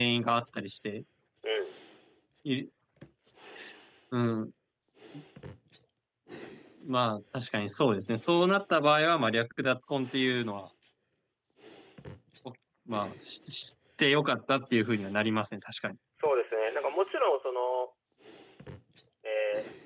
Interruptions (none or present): none